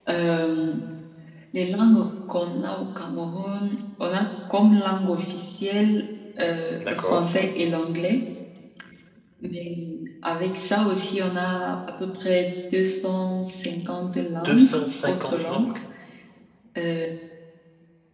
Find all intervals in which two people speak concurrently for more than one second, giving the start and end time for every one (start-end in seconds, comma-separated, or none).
14.4-15.7